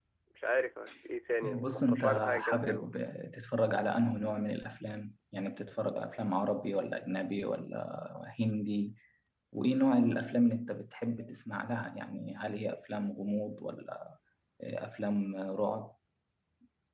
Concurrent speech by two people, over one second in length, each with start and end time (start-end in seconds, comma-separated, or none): 1.5-2.9